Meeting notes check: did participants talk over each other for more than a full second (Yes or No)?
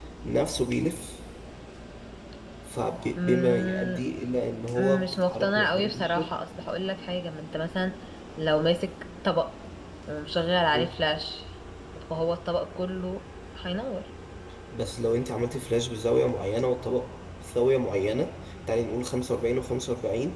Yes